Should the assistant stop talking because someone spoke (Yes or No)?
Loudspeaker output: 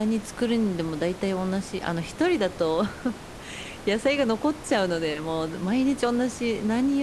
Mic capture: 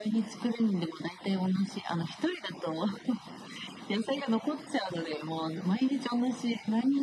No